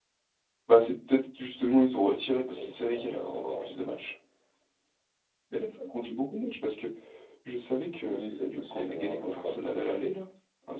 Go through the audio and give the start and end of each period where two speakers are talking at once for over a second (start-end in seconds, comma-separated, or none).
2.5-4.1, 8.0-9.6